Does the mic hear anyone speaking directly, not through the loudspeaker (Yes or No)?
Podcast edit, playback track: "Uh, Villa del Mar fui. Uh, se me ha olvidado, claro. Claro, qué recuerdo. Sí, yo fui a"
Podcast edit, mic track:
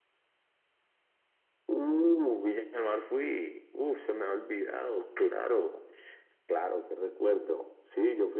No